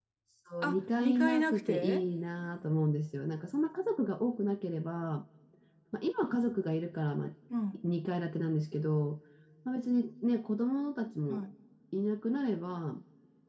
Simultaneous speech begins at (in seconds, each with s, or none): 0.6 s